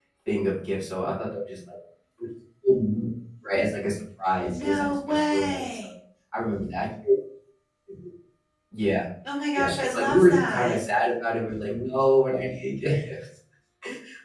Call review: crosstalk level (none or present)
present